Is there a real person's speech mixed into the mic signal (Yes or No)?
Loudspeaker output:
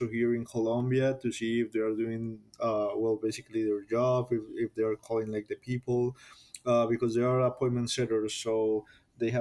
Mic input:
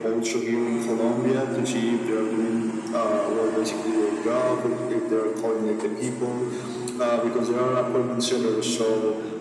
No